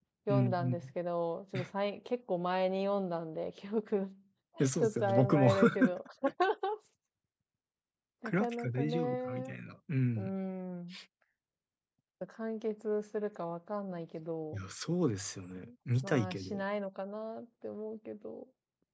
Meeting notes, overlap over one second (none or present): present